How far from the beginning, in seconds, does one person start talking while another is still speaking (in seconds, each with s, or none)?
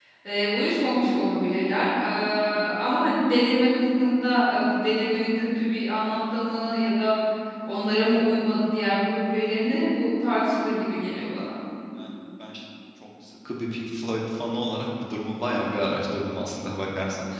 none